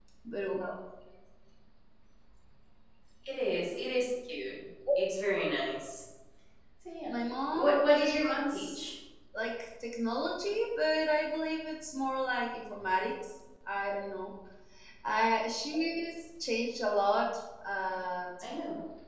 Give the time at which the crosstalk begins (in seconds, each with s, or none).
7.5 s